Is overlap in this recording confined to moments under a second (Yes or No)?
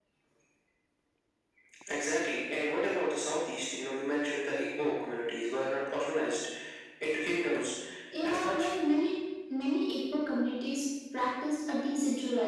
Yes